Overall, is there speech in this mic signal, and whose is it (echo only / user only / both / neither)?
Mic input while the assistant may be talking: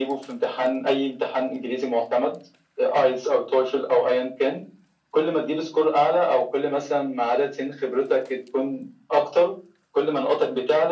echo only